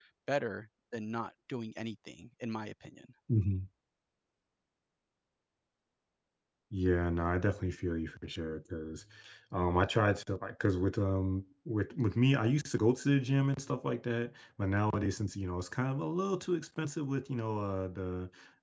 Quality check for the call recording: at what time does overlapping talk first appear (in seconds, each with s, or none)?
none